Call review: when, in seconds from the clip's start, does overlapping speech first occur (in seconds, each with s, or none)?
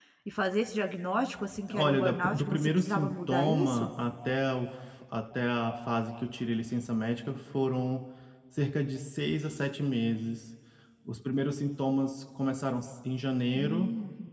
1.7 s